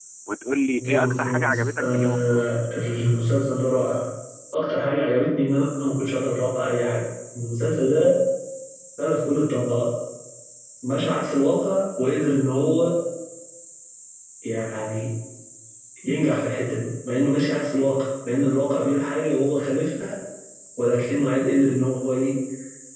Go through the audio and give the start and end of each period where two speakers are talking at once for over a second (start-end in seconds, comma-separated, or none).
0.8-2.5